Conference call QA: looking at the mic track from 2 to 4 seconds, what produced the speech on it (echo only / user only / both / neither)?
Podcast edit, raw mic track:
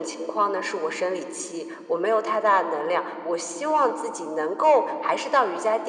echo only